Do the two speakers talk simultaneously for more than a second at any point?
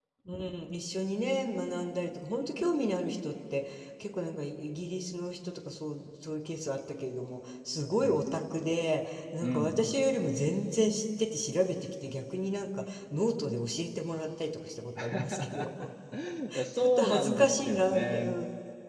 Yes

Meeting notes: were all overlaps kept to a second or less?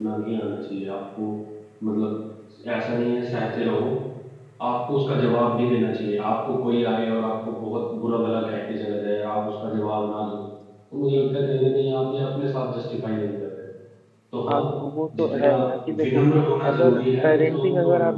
No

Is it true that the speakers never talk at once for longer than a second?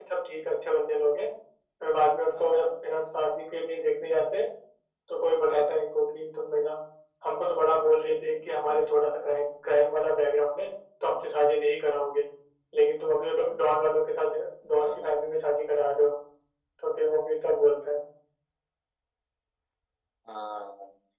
Yes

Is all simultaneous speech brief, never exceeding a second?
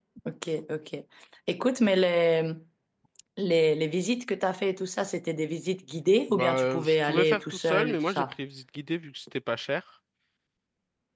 No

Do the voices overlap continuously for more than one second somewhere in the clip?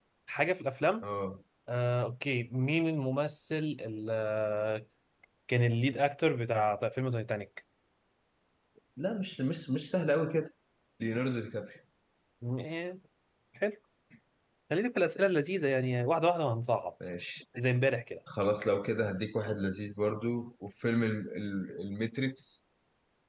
No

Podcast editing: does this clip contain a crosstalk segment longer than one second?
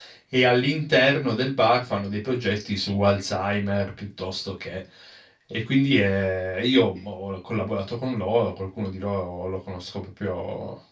No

